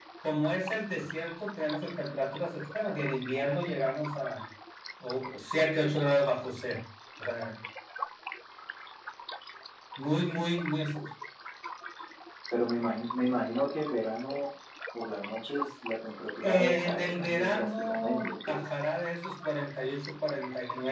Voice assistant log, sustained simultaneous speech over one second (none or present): present